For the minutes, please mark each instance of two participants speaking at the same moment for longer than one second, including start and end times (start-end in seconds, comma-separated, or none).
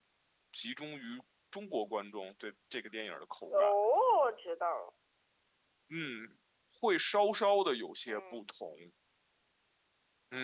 none